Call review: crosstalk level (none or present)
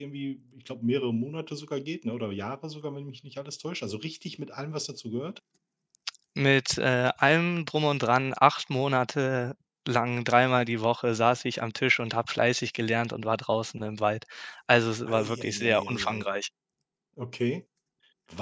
present